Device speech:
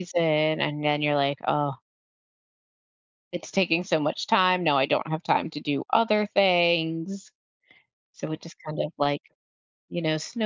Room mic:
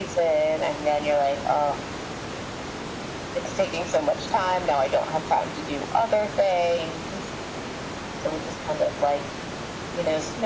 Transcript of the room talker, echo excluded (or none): none